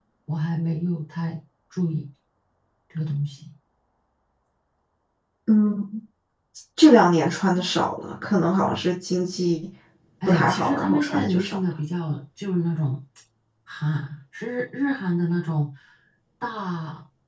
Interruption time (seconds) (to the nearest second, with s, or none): 10 s